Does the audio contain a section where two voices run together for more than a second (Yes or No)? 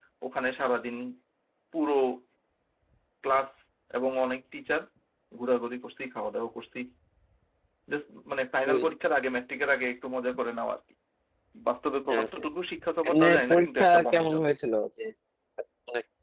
Yes